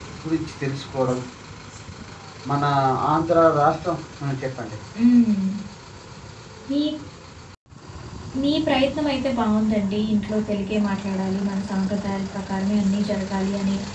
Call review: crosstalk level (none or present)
none